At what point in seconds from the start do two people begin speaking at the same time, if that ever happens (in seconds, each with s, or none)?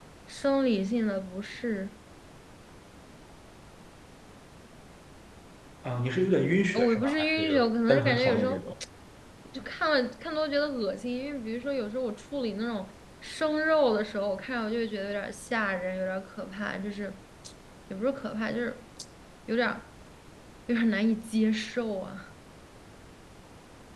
6.7 s